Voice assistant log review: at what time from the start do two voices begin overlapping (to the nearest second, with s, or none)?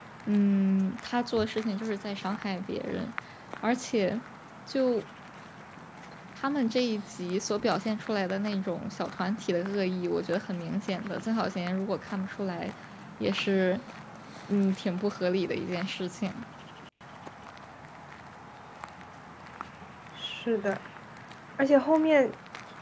none